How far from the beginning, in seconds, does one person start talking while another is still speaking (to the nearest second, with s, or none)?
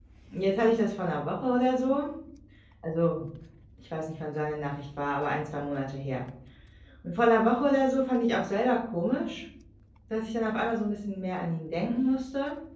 none